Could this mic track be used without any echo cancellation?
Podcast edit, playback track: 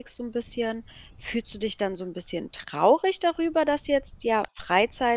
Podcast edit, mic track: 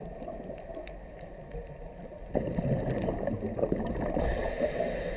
Yes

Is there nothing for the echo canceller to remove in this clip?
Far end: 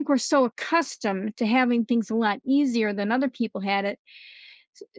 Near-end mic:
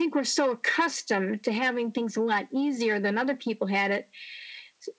No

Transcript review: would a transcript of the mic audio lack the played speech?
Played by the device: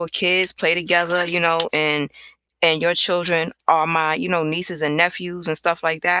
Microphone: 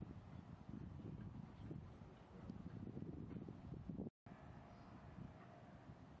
Yes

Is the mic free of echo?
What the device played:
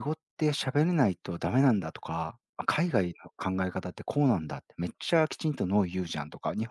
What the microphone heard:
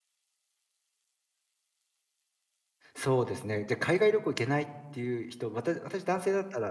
Yes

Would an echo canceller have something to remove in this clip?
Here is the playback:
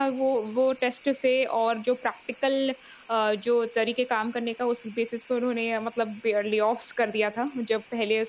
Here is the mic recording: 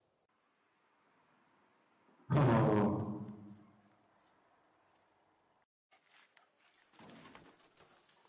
No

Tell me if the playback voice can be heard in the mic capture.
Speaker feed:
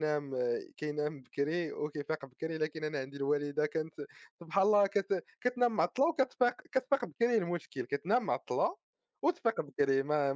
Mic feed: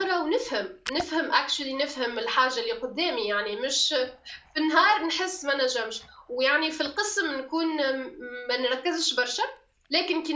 No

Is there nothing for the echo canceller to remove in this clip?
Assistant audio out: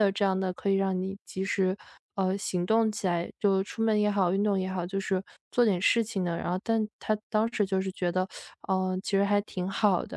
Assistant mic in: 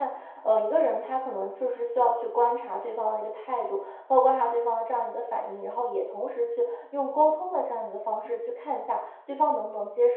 Yes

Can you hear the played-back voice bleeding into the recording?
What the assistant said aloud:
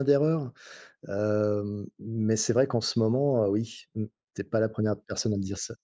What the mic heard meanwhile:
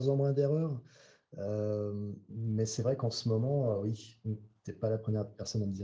Yes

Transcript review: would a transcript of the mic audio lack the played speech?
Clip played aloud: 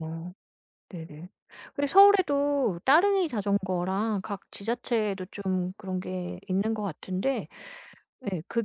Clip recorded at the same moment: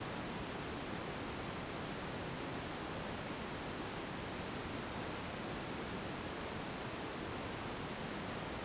Yes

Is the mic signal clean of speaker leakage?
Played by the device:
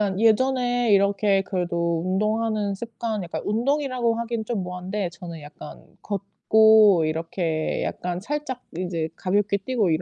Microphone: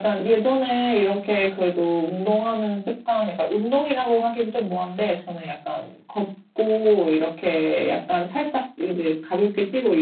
No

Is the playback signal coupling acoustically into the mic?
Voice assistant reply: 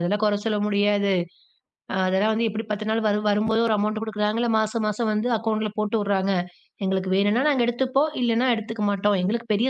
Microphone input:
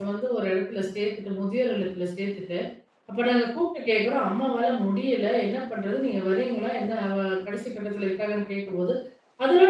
No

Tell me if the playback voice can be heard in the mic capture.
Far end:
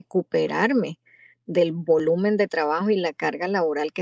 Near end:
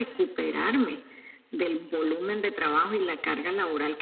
Yes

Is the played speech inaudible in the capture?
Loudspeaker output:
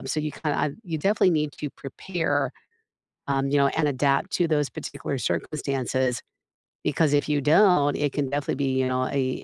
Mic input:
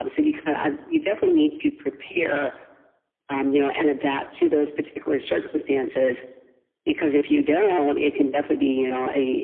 No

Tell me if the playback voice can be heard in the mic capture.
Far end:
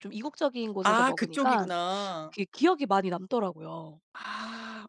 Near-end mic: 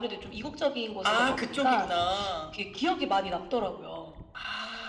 Yes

